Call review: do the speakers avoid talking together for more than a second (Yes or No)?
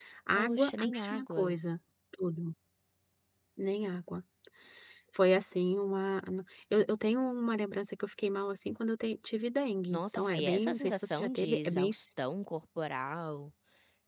No